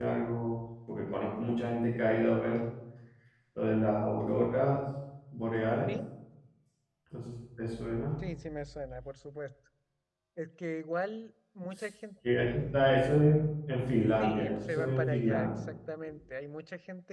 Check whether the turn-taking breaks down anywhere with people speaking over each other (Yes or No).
Yes